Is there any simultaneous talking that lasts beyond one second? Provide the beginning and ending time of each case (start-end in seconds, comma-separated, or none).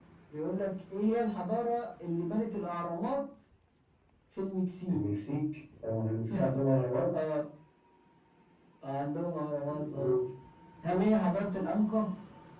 none